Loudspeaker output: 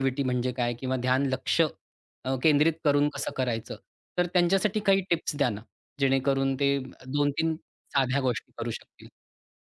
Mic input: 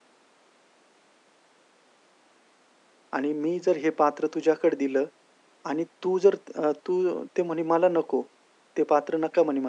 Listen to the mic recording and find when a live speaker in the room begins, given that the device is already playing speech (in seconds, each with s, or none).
3.2 s